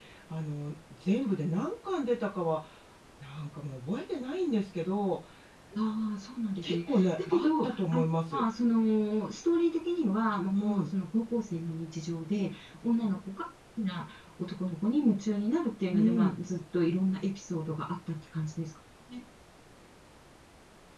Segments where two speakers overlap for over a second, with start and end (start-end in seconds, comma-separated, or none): 6.6-8.4